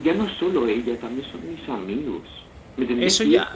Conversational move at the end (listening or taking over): taking over